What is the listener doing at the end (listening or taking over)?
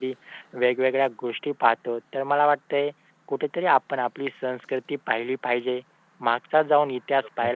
listening